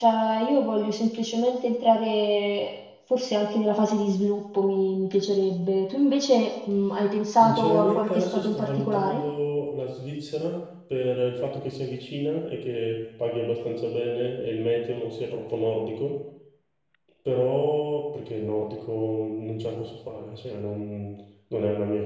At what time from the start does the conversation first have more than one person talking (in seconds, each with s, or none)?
7.3 s